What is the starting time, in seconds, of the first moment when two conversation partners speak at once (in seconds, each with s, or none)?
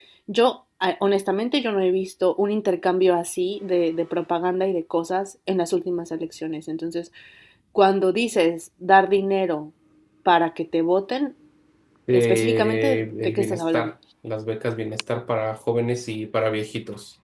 12.1 s